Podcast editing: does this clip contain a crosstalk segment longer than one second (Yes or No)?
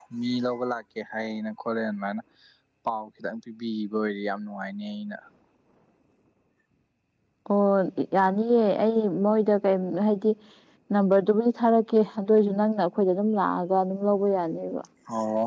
No